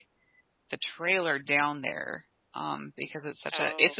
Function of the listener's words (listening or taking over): taking over